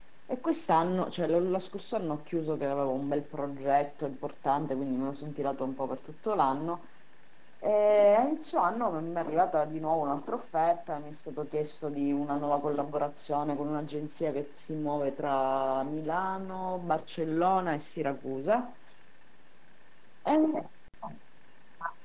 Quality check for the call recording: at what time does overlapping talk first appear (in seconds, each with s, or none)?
none